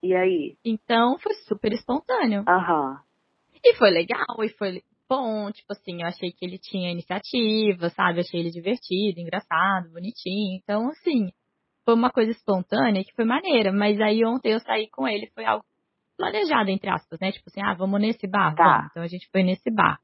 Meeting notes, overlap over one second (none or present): none